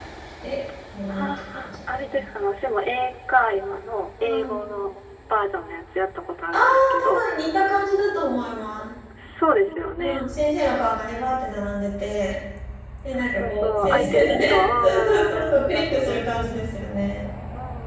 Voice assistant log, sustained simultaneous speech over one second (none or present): present